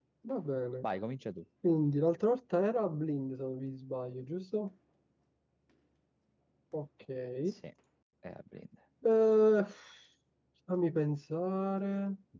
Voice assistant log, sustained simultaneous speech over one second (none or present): none